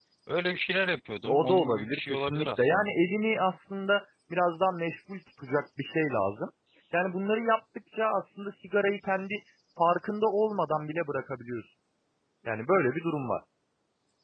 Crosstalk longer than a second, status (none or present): present